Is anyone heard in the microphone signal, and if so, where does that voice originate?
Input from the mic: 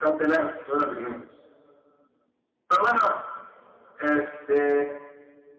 both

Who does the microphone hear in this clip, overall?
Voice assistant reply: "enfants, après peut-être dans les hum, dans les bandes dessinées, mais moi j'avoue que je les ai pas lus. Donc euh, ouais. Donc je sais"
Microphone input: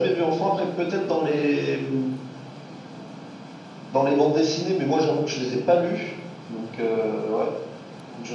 echo only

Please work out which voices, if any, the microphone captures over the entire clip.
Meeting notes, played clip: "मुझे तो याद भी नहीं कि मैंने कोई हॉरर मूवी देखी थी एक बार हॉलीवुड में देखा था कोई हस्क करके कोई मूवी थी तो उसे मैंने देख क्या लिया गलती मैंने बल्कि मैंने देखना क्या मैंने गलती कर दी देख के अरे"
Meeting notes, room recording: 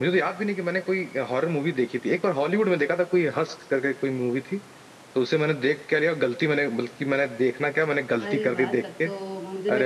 both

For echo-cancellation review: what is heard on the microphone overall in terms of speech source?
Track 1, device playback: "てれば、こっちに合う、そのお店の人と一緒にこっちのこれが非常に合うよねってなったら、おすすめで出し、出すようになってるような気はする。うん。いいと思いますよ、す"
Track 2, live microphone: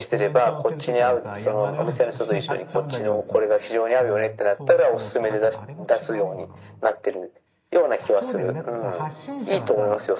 both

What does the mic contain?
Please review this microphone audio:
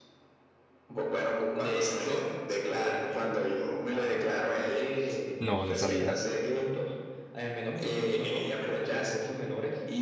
both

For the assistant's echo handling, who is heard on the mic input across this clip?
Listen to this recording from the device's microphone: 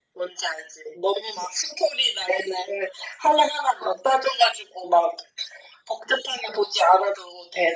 echo only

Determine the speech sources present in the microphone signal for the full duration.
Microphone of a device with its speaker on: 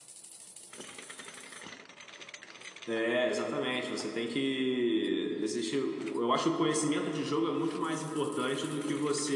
user only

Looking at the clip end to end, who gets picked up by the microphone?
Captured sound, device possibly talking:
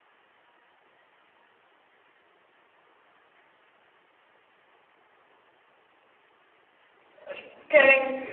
user only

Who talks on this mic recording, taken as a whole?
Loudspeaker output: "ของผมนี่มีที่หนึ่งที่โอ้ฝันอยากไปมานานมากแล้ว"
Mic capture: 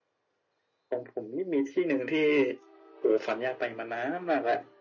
echo only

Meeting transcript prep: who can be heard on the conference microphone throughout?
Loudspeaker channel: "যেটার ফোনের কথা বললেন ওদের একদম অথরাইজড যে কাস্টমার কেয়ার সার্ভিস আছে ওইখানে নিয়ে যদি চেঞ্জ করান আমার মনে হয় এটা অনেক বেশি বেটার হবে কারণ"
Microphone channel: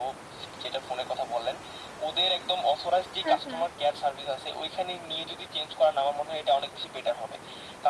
both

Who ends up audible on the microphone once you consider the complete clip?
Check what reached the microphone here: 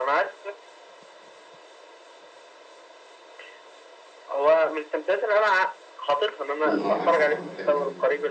both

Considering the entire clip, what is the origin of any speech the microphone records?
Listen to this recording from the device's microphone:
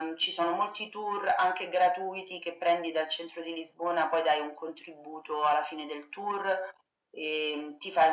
echo only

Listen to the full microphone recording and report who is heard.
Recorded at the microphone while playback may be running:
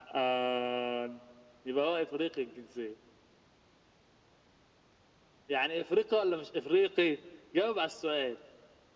echo only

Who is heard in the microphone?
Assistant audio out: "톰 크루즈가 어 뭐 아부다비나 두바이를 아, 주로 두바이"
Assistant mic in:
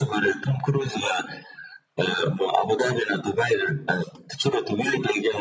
echo only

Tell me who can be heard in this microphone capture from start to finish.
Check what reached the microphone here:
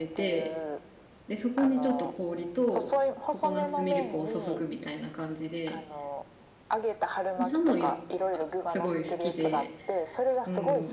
both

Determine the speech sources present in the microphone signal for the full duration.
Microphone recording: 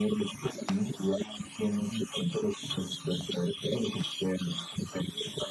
echo only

